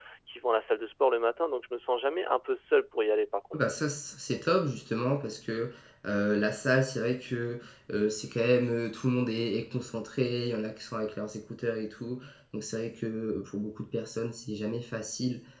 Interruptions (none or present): none